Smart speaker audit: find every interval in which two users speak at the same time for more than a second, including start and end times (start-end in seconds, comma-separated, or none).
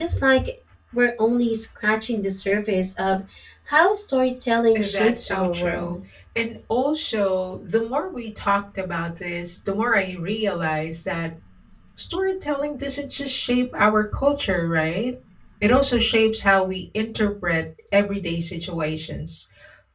4.8-6.0